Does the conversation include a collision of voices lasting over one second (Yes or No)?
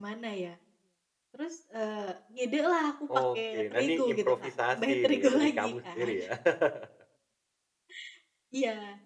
Yes